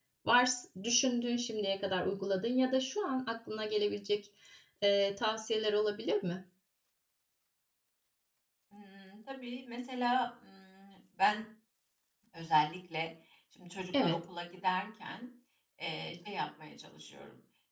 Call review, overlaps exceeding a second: none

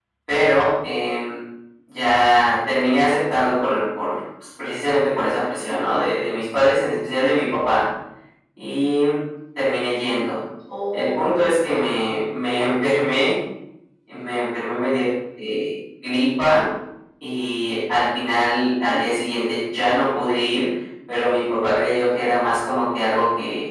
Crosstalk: present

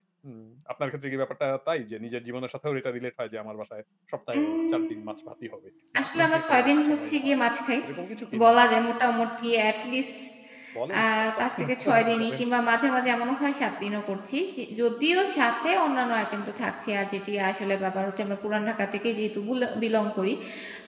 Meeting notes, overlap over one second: present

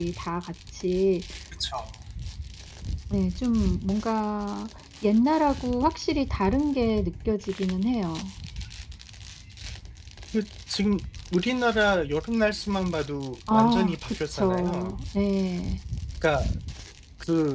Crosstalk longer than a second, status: present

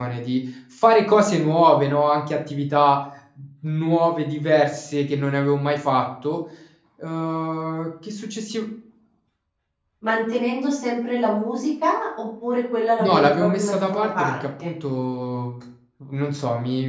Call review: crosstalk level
present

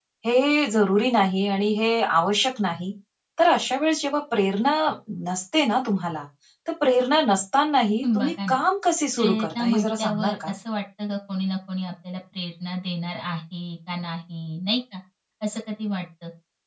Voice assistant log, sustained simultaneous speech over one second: present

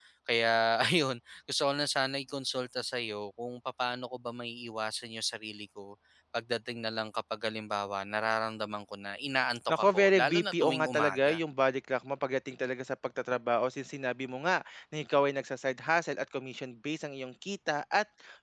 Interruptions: present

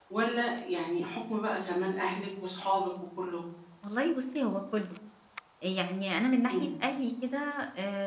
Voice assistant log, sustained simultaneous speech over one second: none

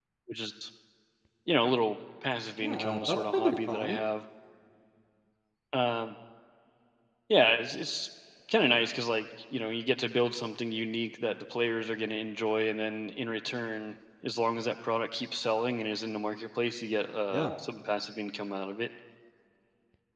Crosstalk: present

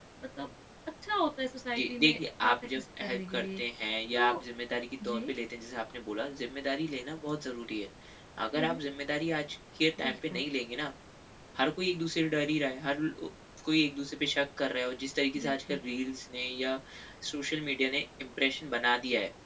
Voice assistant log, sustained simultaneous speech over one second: present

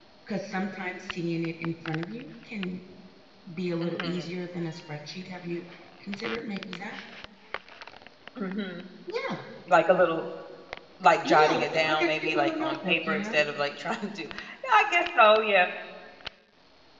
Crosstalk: present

